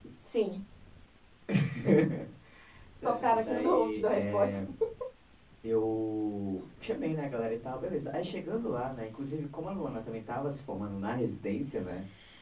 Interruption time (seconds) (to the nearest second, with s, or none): 3 s